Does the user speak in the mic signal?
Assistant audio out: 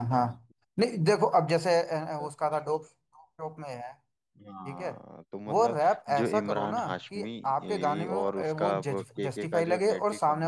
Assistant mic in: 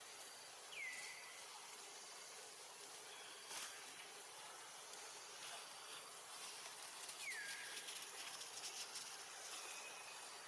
No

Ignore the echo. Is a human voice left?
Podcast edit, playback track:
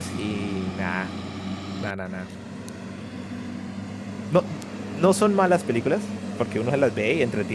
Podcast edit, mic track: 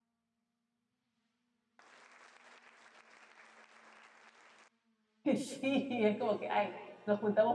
Yes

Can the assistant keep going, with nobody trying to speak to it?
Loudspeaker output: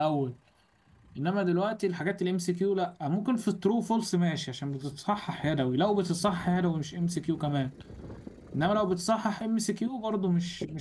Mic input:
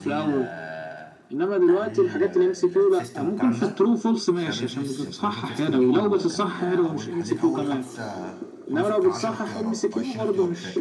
No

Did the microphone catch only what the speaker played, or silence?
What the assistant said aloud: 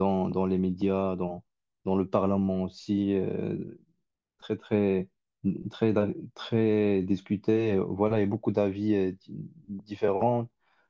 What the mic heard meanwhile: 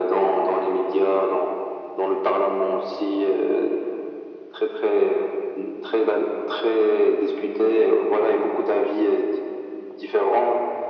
Yes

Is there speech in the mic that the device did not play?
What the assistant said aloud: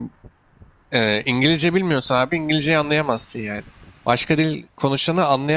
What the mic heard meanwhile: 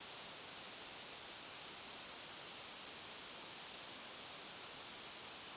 No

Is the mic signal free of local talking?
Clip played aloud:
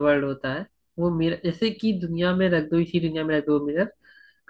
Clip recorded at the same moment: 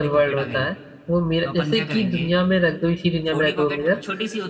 No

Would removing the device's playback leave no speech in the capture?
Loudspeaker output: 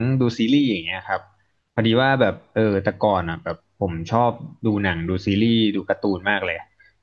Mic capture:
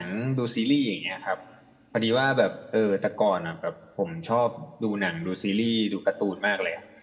Yes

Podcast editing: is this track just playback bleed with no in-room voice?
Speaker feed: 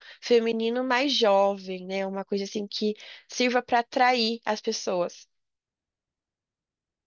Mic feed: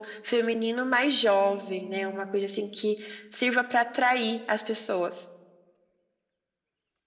No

